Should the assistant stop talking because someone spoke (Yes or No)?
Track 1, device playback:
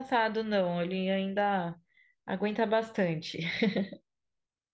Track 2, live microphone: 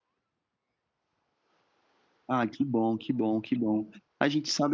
Yes